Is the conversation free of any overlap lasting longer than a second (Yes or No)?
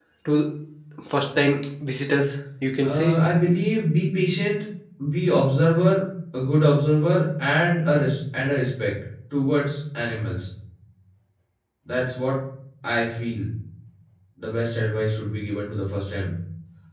Yes